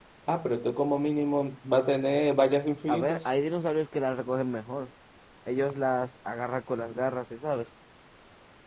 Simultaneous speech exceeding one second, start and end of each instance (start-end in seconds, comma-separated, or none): none